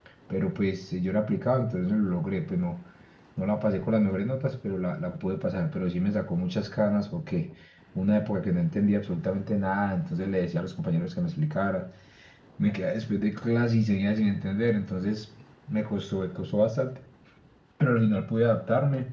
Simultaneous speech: No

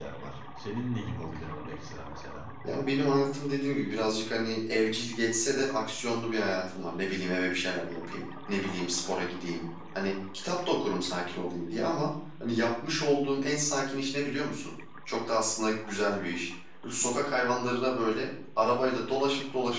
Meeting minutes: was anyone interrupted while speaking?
No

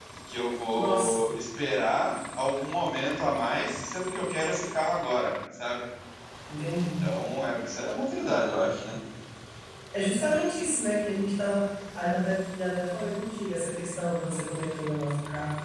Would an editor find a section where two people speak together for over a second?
No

